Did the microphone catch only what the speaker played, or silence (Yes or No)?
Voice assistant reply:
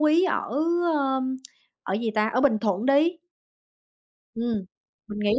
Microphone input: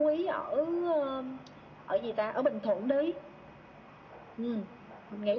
Yes